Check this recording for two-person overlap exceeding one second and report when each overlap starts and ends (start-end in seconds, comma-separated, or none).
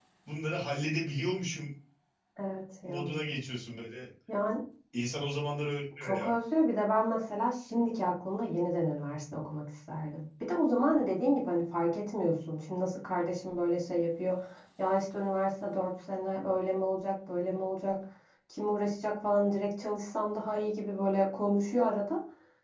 none